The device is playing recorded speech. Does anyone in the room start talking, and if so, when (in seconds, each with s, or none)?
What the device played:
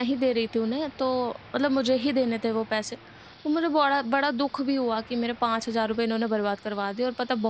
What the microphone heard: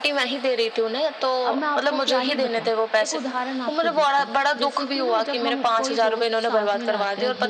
1.4 s